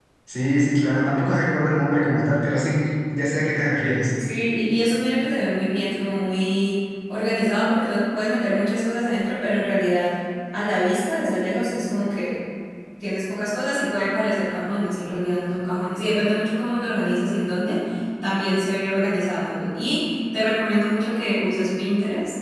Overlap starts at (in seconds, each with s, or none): none